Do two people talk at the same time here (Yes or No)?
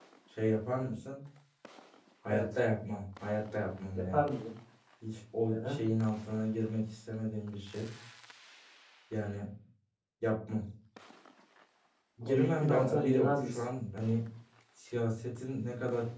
Yes